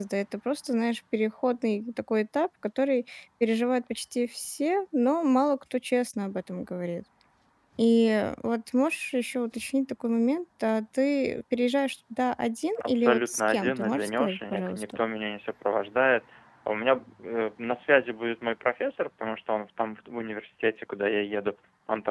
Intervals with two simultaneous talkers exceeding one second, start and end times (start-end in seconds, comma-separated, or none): 12.8-15.0